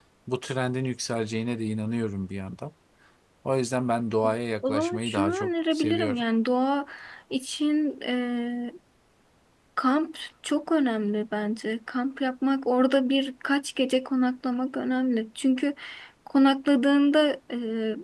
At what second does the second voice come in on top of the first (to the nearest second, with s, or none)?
5 s